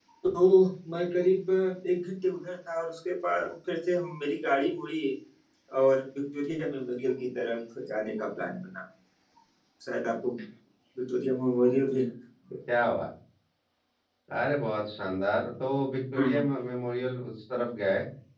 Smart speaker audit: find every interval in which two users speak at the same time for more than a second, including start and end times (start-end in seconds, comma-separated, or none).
none